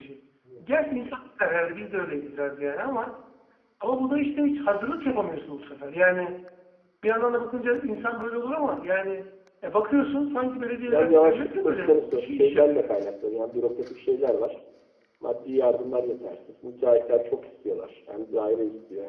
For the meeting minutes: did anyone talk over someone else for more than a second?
Yes, from 10.9 s

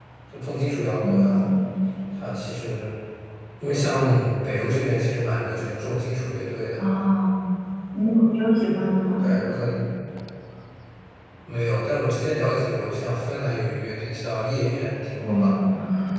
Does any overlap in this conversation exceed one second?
No

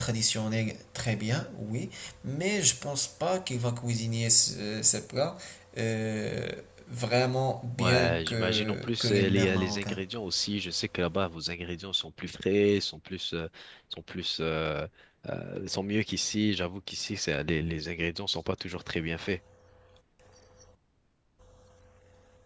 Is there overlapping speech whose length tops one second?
Yes, from 7.8 s

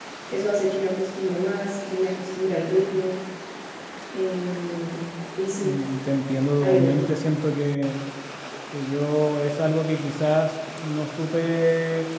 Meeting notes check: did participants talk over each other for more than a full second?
No

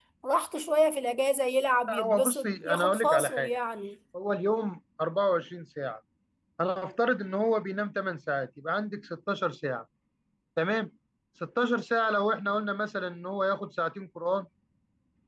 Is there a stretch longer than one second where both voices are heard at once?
Yes, from 1.9 s

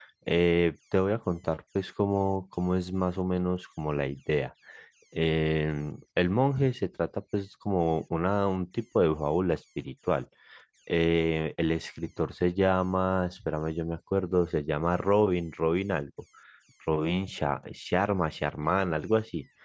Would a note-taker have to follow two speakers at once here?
No

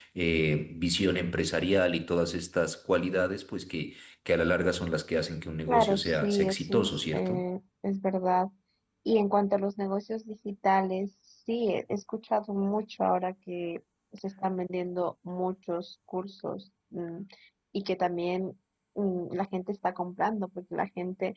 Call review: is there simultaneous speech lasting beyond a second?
Yes, from 5.7 s

